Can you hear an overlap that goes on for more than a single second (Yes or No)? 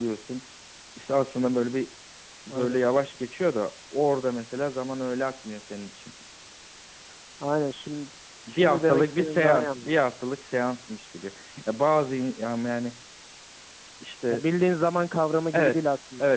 Yes